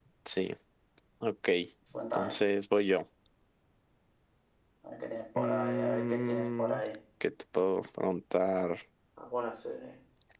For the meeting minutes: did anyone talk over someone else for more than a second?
Yes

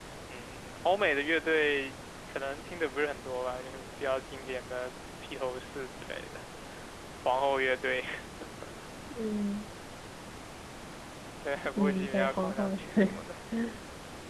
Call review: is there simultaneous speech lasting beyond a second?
Yes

